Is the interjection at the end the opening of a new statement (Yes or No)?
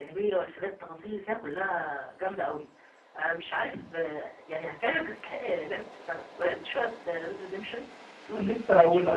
Yes